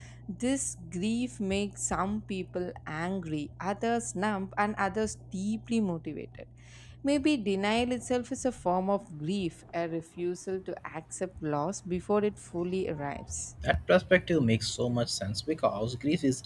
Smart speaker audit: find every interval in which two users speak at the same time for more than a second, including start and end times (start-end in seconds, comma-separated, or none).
none